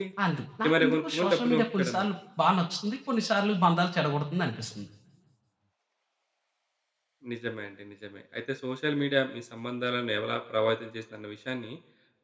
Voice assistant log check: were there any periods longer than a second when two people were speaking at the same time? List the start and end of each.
0.6-2.1

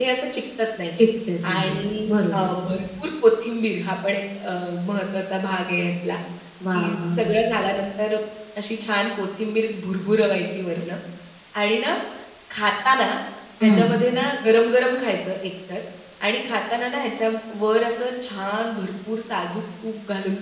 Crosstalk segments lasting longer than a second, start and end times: none

